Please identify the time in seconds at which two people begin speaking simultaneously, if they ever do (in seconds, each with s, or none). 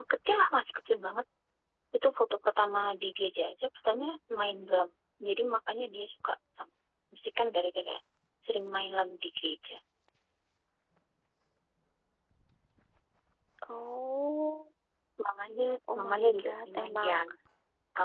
15.9 s